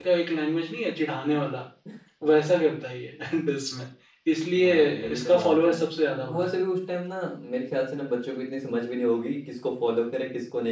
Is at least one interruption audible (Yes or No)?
Yes